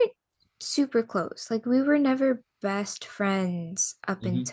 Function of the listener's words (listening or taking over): listening